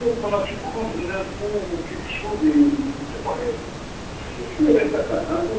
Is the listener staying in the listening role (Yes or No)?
Yes